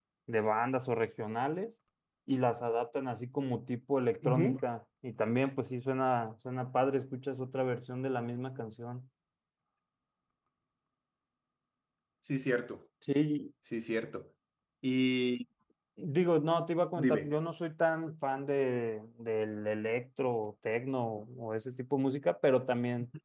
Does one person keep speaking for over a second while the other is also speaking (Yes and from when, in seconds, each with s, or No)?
No